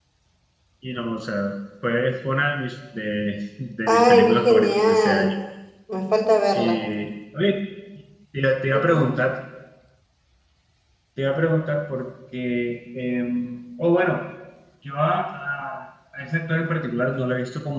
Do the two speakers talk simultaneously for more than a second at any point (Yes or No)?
Yes